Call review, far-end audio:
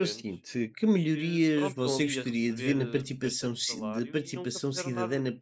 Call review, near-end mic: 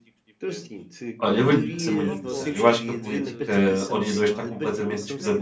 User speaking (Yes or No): Yes